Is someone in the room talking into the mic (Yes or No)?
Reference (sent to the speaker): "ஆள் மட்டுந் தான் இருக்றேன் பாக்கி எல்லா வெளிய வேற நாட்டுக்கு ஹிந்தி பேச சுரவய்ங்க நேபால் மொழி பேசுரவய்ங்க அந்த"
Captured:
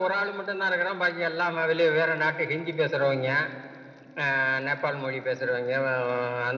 No